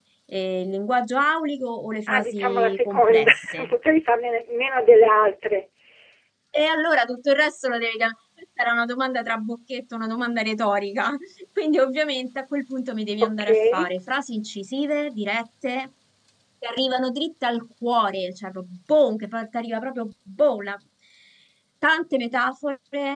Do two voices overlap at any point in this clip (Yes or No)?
Yes